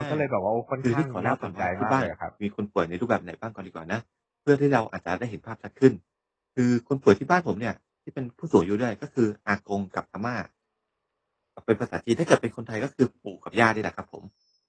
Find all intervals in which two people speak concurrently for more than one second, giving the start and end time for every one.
0.8-2.1

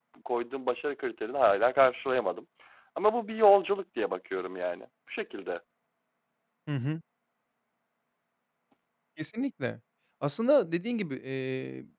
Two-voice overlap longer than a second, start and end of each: none

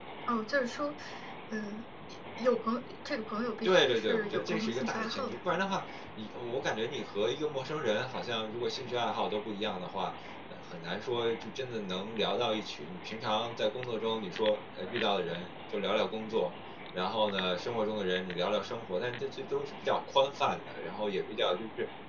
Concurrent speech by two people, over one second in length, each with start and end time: 3.6-5.4

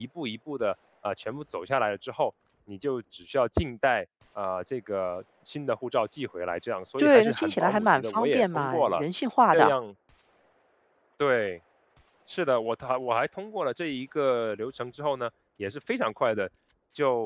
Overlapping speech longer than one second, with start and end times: 7.0-9.0

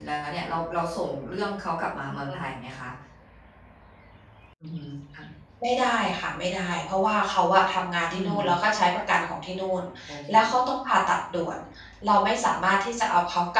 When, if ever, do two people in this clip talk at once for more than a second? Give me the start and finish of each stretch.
none

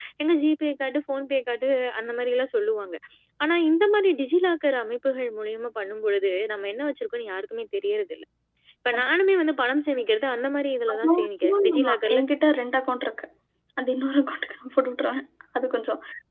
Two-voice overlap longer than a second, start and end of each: 10.9-12.2

